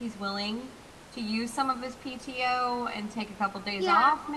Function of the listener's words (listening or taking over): taking over